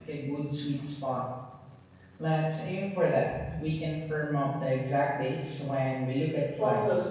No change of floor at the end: No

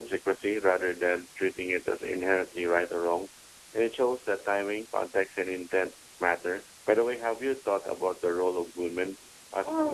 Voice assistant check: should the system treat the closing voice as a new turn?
Yes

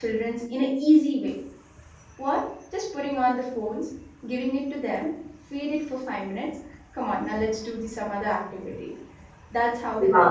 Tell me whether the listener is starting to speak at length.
Yes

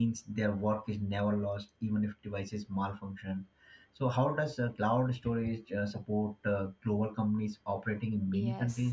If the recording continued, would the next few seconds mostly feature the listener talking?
Yes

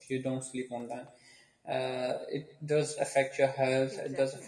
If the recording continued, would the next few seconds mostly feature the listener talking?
No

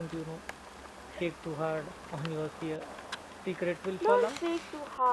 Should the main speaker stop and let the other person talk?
Yes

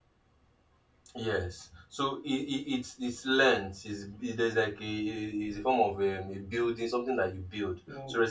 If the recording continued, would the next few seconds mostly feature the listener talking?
No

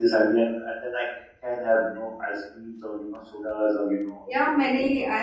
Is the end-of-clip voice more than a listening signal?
Yes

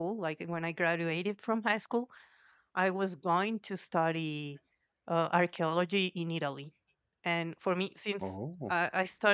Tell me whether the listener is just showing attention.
Yes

